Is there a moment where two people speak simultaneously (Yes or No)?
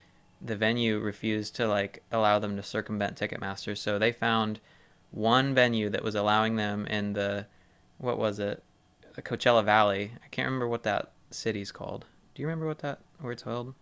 No